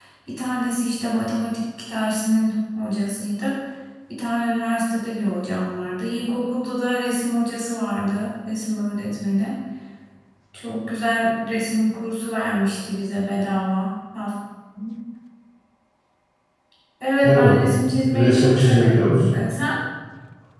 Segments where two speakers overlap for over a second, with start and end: 18.1-19.4

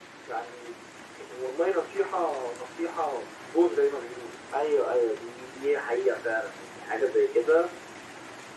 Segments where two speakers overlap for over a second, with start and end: none

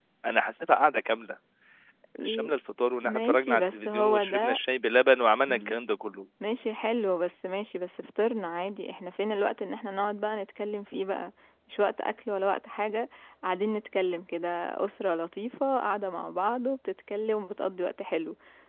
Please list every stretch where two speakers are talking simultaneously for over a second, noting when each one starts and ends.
3.0-4.6

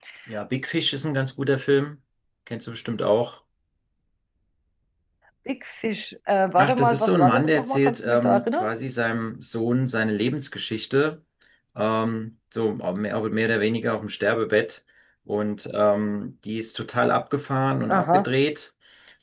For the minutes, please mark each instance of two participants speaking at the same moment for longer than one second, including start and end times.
6.6-8.7

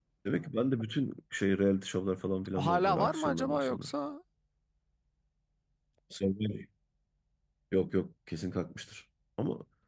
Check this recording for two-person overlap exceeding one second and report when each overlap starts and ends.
2.6-3.9

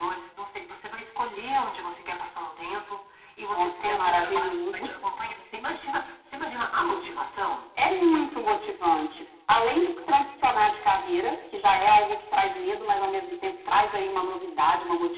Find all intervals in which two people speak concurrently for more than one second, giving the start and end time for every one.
3.5-4.9

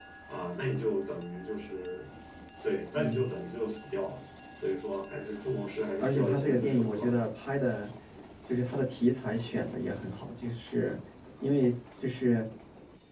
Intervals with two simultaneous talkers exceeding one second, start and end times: 6.0-7.2

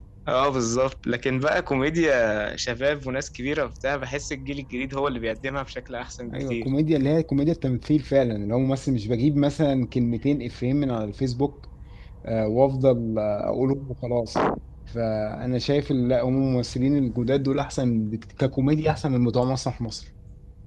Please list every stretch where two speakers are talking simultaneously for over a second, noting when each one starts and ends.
none

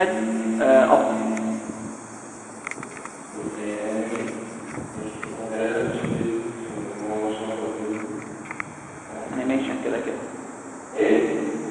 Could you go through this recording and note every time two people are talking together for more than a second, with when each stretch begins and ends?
none

